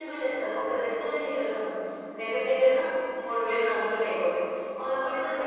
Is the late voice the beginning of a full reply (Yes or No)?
No